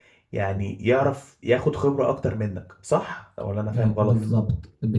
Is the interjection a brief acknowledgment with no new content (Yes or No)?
No